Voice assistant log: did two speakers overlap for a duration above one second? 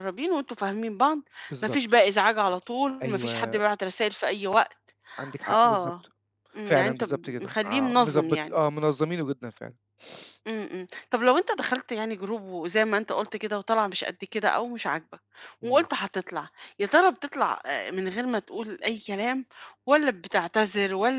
Yes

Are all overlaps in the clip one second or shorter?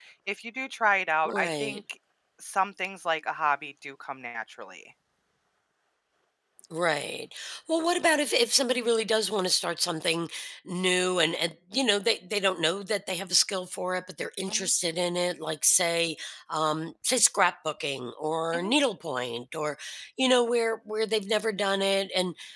Yes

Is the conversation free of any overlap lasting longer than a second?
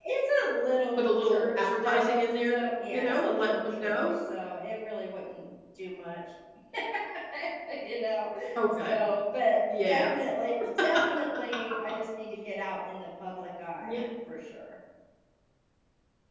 No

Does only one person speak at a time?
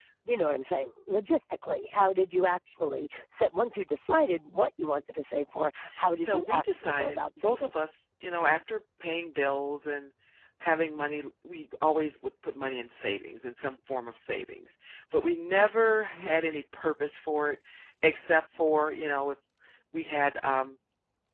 No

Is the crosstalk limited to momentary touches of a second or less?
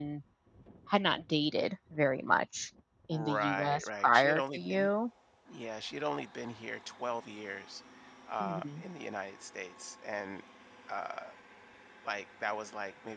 No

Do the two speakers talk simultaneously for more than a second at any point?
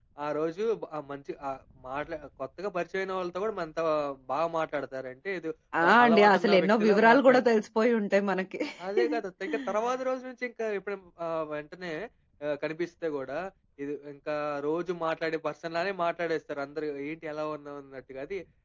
Yes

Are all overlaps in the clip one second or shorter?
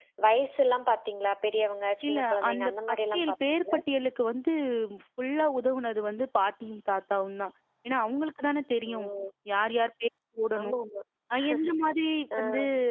No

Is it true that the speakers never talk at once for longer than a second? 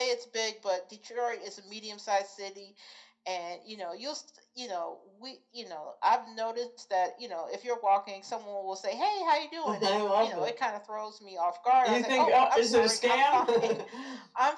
No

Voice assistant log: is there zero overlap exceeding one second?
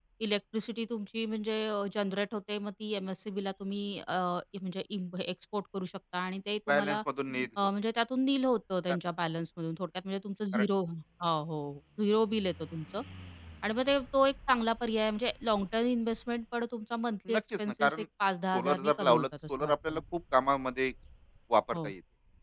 No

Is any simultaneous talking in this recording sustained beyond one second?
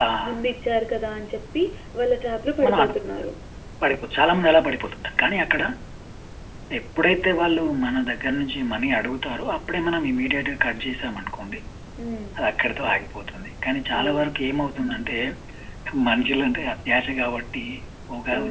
No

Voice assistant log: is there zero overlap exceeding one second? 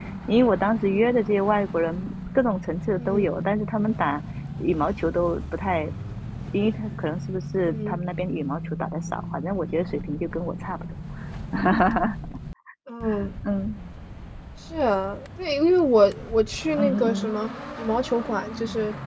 Yes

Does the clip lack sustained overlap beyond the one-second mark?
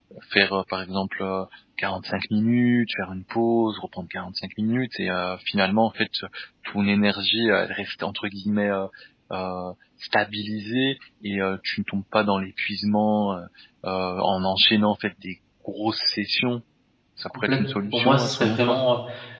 No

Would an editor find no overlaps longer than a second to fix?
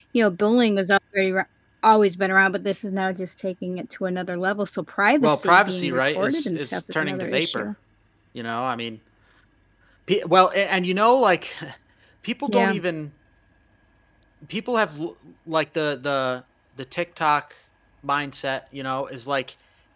No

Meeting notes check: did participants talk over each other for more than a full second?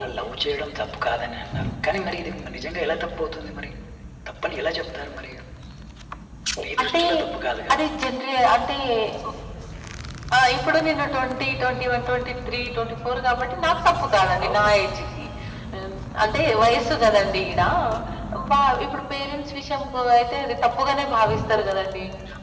No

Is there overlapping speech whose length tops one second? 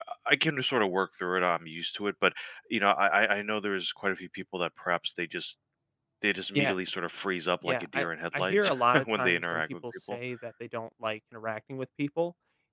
Yes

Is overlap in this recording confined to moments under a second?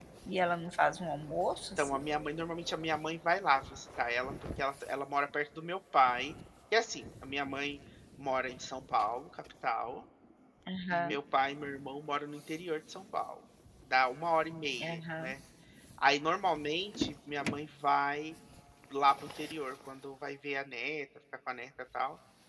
Yes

